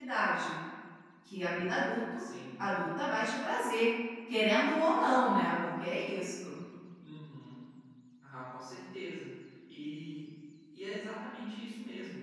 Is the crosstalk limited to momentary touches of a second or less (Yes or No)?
Yes